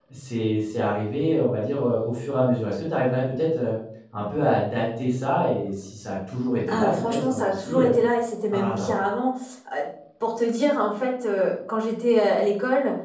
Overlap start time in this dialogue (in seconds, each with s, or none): 6.7 s